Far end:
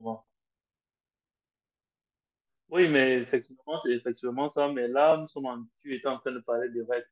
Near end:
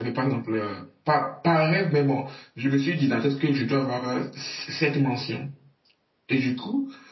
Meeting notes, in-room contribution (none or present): present